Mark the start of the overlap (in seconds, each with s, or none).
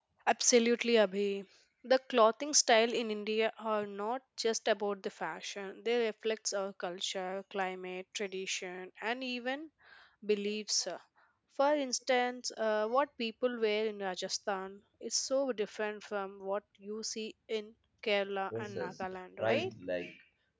18.5 s